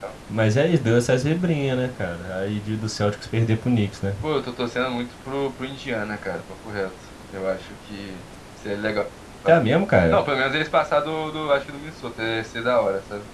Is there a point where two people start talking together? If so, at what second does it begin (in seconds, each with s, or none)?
none